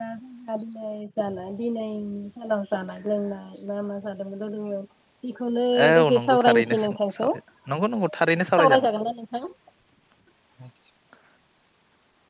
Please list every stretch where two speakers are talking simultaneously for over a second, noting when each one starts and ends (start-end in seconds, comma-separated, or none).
5.9-7.3